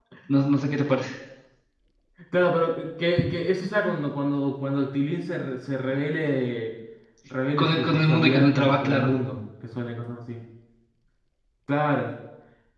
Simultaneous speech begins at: 7.6 s

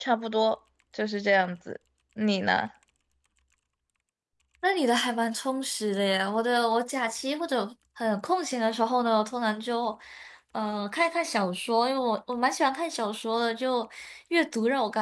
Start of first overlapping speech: none

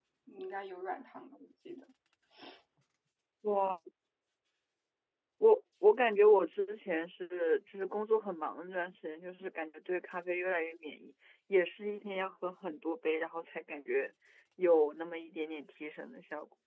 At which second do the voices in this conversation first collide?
none

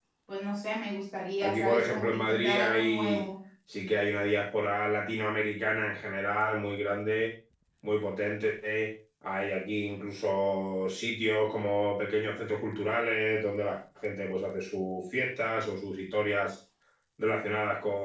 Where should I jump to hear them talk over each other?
1.4 s

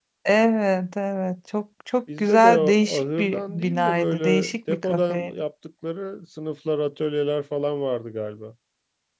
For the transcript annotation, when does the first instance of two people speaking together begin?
2.1 s

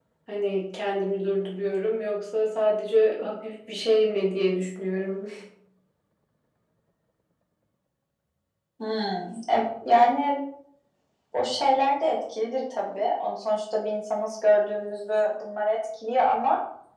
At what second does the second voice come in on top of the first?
none

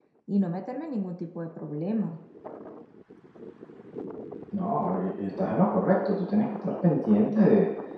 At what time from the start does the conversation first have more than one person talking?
none

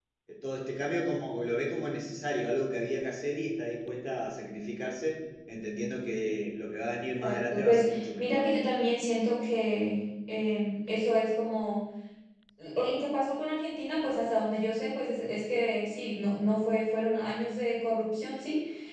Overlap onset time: 7.2 s

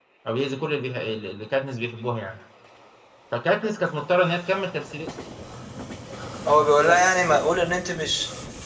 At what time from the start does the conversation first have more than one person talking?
none

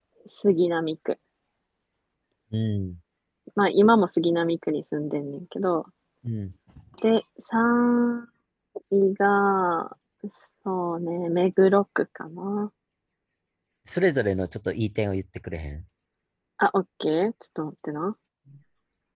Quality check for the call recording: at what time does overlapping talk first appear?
none

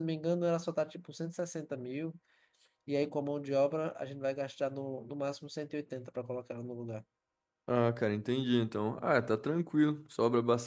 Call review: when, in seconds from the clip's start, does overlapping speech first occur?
none

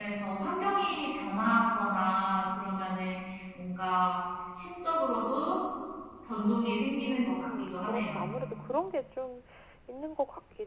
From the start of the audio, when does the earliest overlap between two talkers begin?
7.1 s

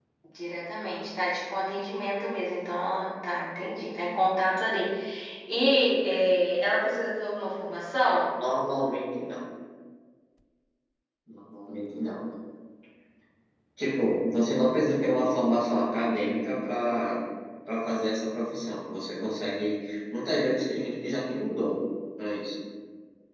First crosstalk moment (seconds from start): none

